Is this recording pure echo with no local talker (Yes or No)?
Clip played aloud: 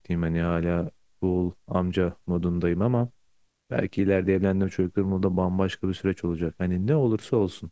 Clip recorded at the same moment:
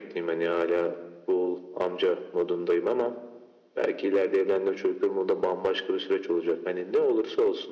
Yes